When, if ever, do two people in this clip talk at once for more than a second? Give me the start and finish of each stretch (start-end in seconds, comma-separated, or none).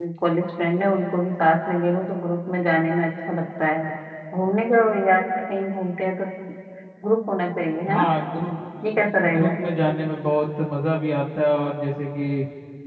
none